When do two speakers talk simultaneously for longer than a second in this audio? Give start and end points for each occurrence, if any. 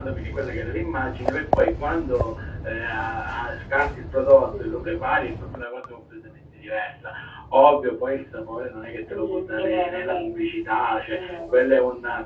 9.1-10.4

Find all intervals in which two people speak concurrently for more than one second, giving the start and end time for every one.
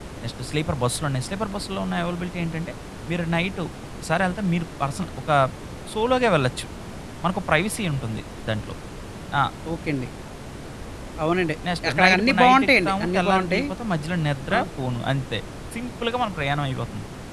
11.8-13.7

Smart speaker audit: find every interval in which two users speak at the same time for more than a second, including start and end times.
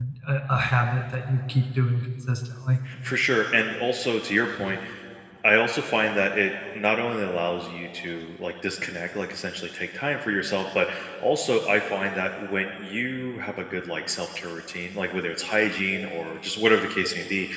none

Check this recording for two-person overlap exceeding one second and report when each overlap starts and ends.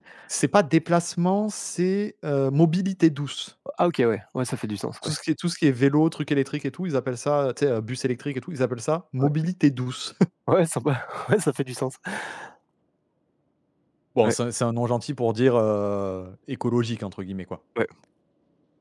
none

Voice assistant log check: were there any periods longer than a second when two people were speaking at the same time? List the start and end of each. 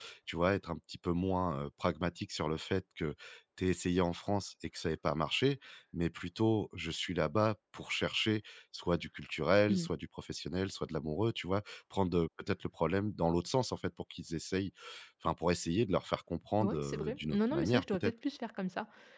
16.6-18.1

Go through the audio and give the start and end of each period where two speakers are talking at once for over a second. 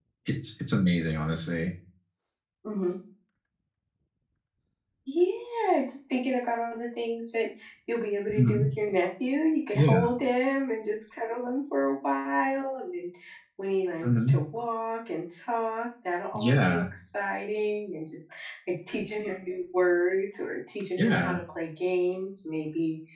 none

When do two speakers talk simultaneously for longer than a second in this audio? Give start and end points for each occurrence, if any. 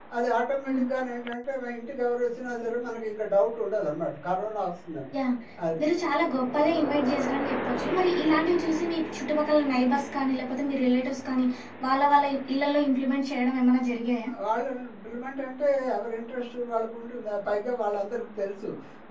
none

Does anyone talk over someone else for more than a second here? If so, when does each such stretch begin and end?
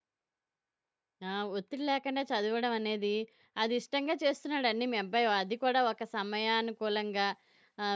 none

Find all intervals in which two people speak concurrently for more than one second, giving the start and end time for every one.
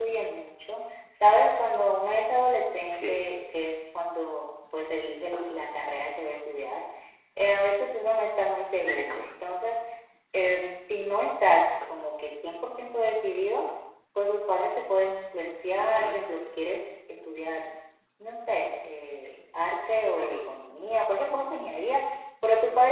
none

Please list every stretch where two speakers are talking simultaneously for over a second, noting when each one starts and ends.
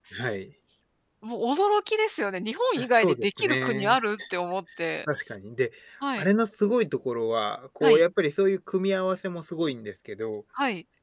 2.8-4.0

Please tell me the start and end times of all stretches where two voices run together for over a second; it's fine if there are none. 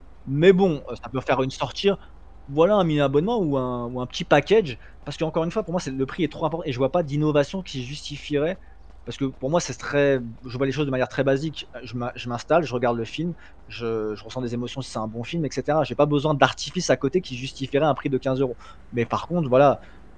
none

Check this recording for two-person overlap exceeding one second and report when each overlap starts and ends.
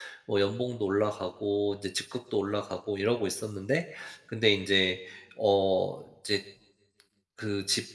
none

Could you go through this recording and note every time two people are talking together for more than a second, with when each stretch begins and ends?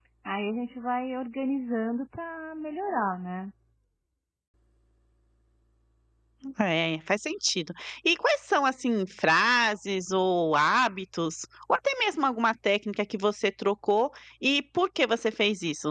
none

